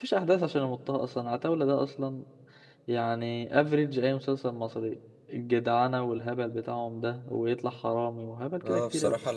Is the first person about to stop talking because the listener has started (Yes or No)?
Yes